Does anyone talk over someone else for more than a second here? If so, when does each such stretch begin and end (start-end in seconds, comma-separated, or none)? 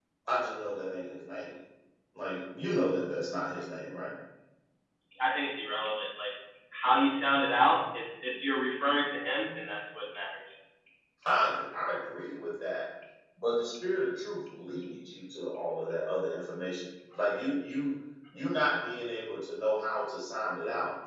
none